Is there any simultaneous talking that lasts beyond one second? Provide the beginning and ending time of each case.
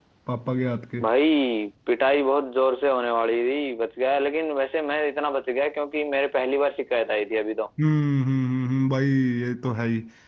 none

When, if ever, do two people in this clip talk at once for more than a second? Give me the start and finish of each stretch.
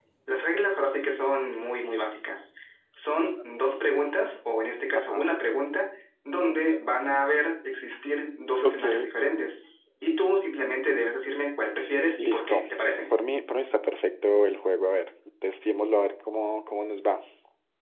none

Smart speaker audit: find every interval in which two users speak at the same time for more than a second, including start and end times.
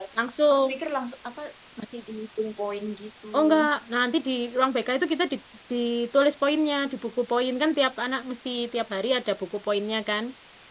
none

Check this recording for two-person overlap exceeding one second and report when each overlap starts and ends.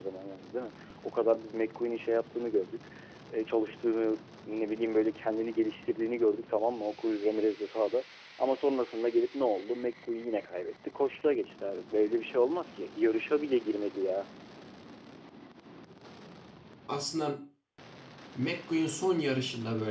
none

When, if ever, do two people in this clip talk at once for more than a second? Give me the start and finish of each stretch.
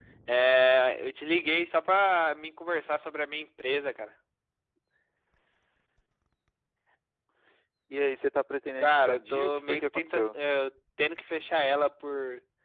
8.8-10.3

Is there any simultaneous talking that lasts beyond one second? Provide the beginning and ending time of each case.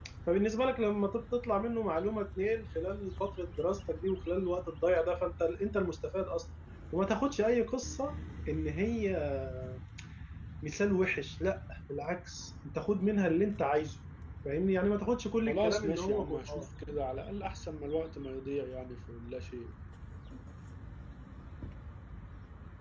15.5-16.7

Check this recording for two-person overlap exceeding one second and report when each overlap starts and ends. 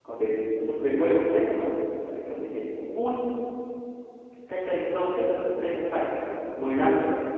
none

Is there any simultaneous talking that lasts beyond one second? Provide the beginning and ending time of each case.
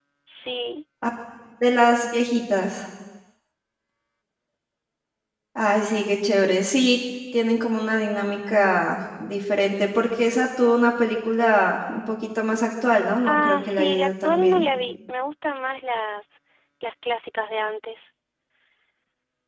13.2-14.6

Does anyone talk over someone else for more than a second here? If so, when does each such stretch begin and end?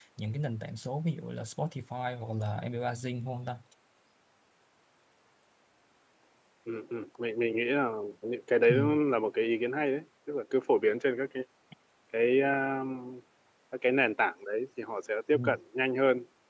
none

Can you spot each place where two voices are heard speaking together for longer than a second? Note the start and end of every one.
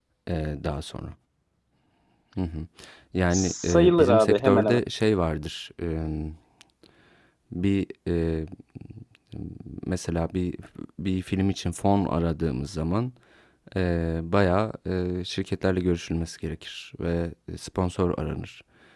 3.3-4.8

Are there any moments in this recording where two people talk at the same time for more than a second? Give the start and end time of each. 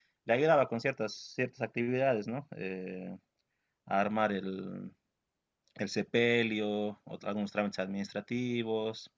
none

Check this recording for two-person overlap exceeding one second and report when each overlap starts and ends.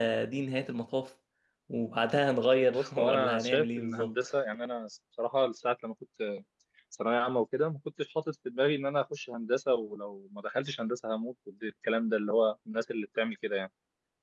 2.7-4.2

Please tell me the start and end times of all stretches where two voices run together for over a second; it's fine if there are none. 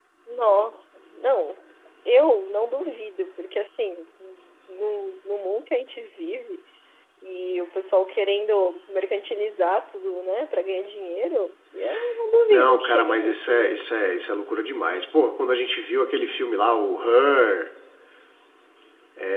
12.5-13.7

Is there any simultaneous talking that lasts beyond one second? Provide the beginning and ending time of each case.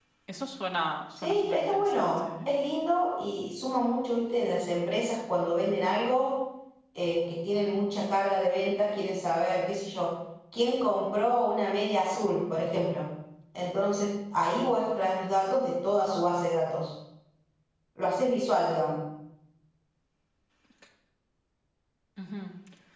1.2-2.5

